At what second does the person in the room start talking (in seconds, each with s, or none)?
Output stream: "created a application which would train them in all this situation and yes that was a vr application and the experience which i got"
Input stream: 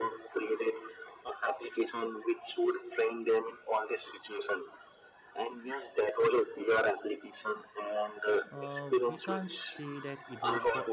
8.5 s